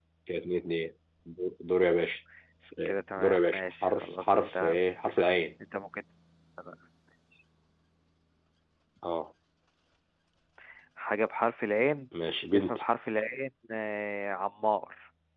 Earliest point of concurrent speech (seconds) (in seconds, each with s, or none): 2.9 s